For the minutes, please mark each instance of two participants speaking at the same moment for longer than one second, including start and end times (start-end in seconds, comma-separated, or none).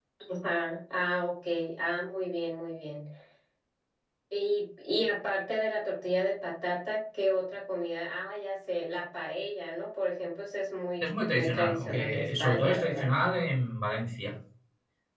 11.0-13.1